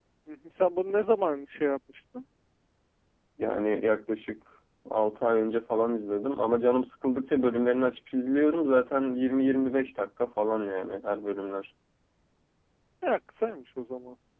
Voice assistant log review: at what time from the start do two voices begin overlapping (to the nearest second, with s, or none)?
none